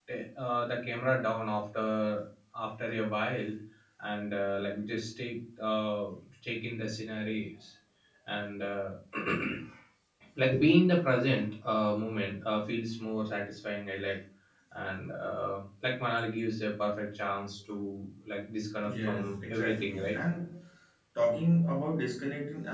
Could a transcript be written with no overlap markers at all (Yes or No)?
No